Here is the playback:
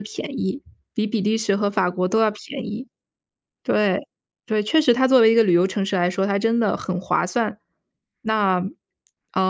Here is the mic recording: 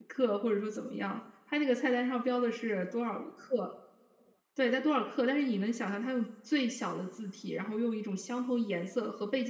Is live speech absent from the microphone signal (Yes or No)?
No